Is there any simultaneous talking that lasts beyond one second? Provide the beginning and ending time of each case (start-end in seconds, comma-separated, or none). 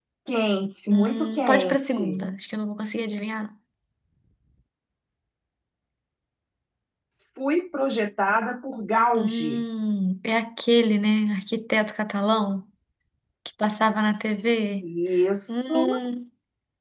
0.9-2.2